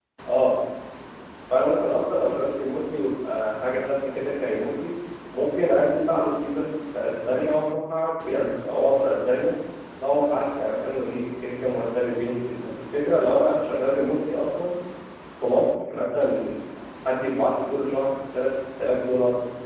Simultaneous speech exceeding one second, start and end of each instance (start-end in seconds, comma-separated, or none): none